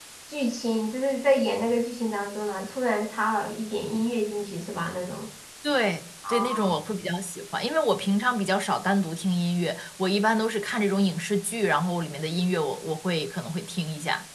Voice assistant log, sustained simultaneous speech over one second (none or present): none